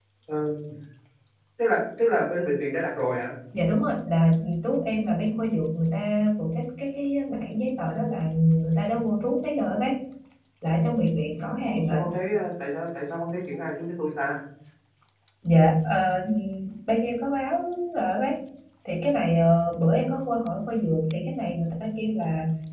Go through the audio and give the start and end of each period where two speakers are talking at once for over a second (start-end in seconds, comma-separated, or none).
none